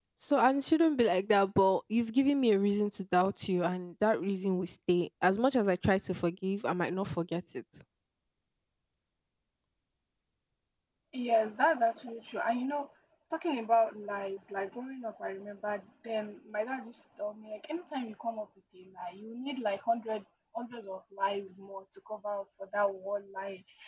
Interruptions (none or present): none